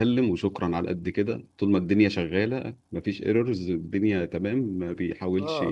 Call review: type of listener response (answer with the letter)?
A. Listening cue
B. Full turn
B